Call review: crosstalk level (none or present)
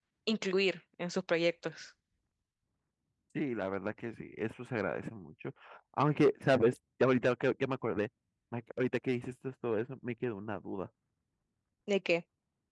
none